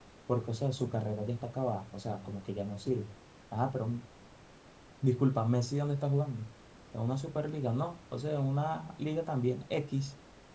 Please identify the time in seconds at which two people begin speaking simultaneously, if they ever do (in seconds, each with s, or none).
none